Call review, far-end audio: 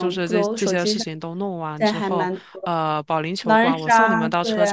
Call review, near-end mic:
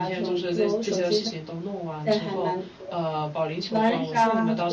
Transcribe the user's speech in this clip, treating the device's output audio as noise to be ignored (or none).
none